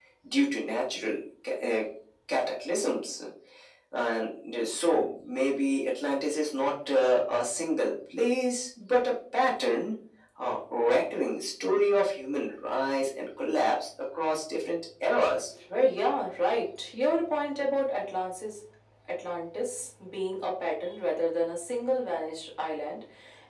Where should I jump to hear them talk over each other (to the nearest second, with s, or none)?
none